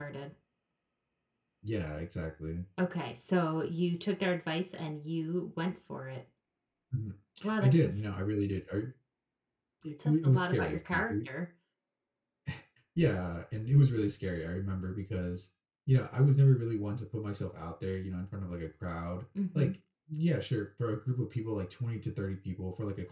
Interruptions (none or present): present